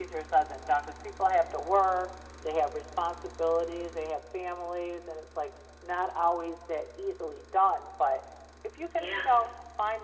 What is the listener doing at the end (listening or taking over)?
listening